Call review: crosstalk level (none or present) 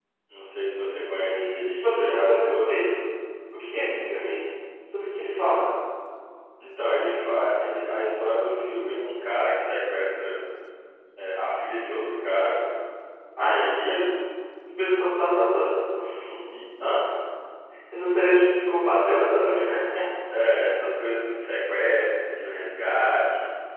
present